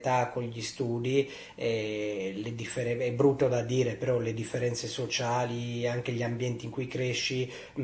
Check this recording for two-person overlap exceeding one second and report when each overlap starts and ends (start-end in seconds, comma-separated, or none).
none